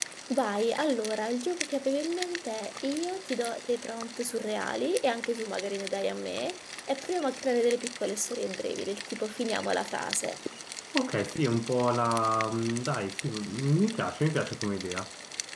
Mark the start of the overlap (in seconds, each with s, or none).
none